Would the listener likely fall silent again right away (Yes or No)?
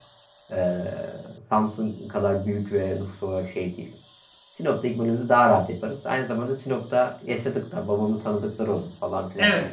No